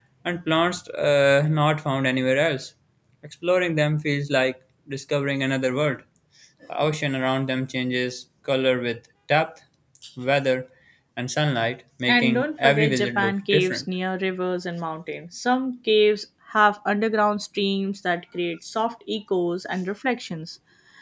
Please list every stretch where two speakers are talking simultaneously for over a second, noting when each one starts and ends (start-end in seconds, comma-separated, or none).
12.1-13.8